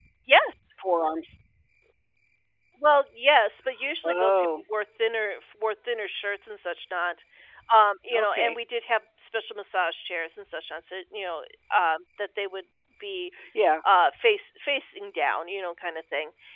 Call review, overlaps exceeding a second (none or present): none